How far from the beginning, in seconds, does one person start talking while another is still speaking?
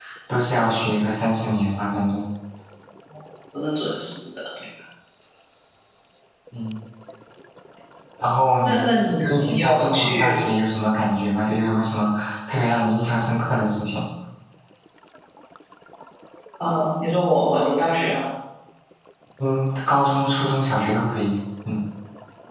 8.6 s

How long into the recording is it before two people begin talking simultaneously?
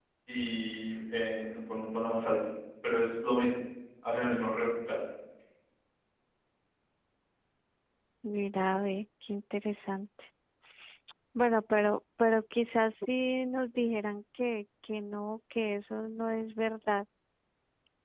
none

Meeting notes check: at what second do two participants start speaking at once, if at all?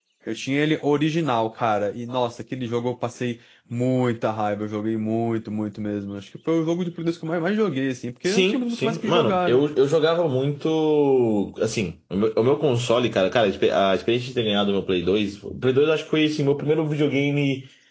8.2 s

